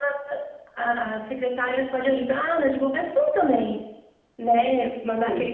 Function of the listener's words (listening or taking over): listening